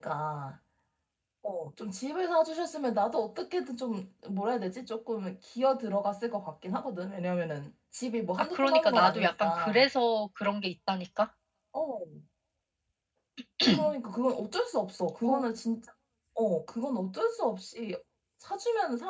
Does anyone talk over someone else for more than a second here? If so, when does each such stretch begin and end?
8.4-9.8

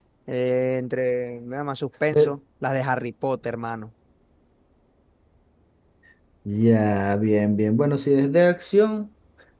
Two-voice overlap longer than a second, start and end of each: none

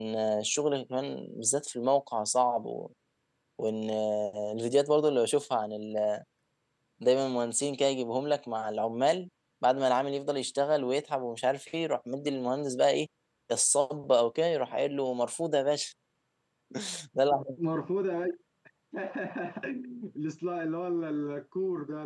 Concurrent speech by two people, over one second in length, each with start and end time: none

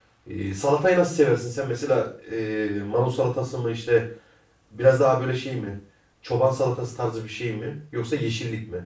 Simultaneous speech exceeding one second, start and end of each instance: none

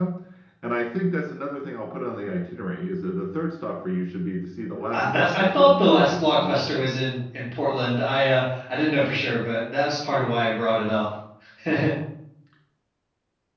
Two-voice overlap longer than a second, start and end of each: 4.9-6.9

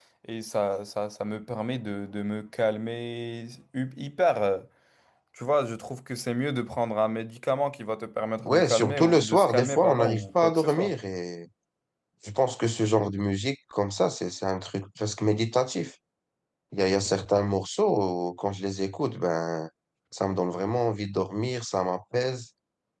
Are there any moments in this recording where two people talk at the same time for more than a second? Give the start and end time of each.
8.4-10.9

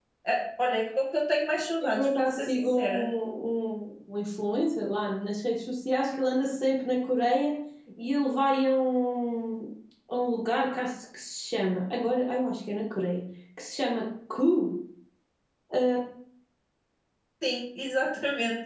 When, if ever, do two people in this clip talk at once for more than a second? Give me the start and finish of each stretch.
1.8-3.1

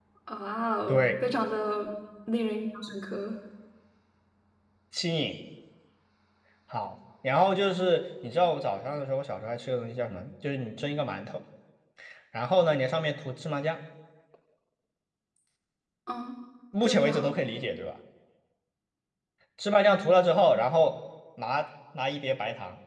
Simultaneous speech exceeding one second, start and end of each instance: none

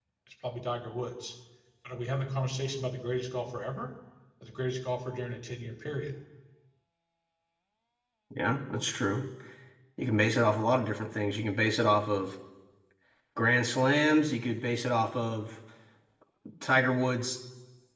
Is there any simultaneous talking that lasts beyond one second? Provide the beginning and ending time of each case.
none

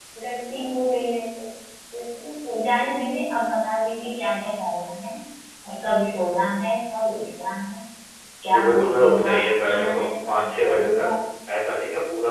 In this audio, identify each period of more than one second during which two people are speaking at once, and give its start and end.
8.5-11.1

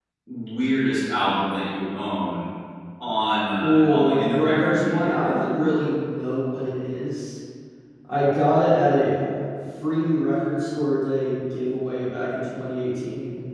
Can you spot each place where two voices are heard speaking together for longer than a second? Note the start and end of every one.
3.6-5.2

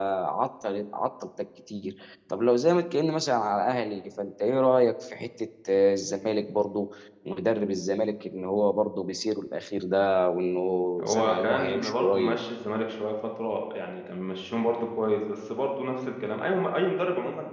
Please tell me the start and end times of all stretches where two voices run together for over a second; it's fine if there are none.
11.0-12.4

